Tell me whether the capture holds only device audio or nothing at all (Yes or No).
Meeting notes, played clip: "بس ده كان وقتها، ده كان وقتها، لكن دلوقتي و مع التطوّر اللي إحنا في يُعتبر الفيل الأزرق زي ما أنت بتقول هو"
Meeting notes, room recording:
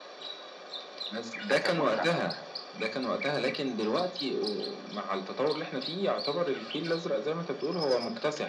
No